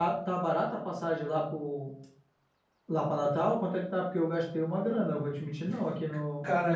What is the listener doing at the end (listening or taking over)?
taking over